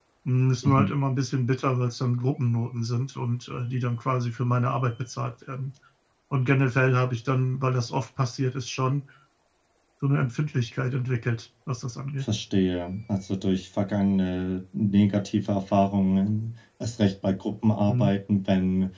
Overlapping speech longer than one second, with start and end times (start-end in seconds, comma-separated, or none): none